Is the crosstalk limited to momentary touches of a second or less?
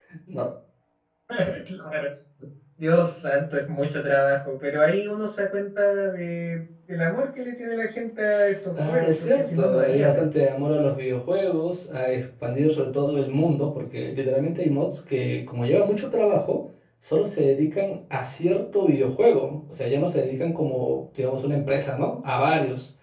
No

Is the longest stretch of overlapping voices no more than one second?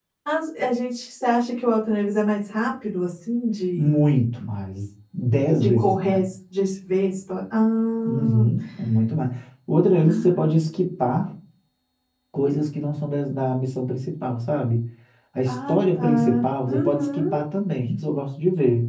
No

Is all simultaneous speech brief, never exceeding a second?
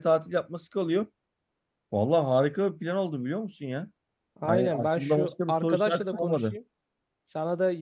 No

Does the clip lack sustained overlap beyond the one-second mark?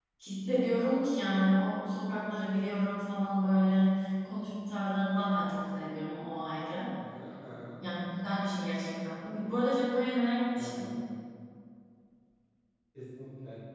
Yes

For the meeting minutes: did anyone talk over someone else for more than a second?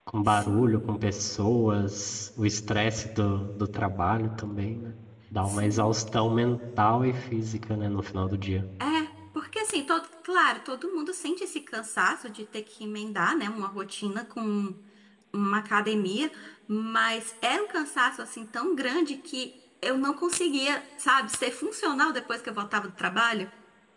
No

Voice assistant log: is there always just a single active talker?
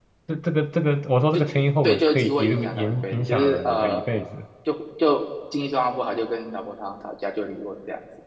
No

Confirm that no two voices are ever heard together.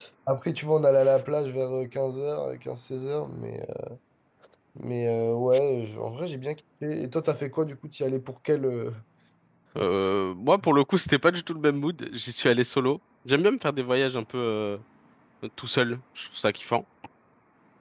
Yes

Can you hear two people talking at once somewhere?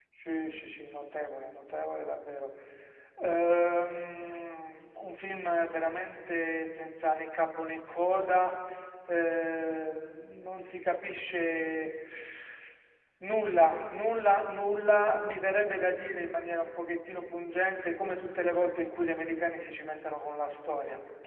No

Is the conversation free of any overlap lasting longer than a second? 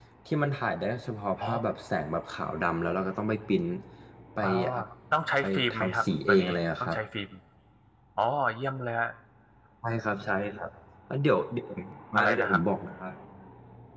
No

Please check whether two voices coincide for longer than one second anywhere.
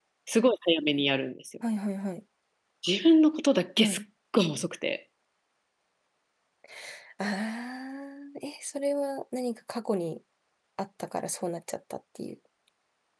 No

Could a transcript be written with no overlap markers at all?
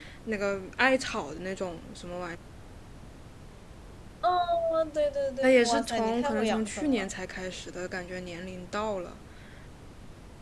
No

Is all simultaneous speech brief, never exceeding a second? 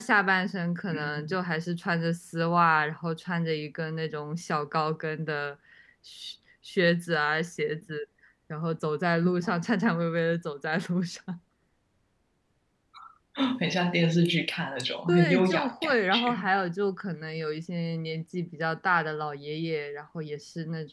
No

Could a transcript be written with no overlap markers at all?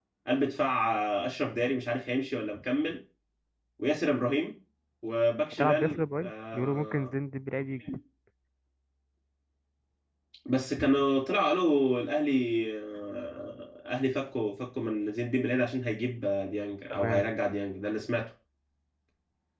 No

